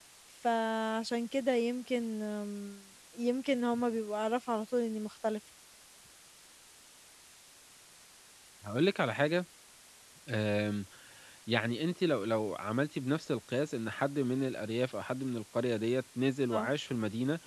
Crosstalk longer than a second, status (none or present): none